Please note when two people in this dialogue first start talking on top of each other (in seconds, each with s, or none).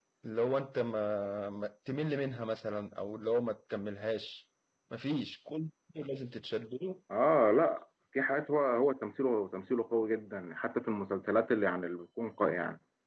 none